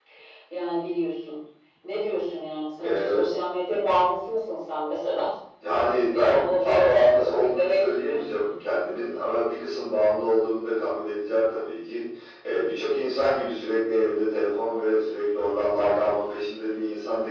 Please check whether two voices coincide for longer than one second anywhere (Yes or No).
Yes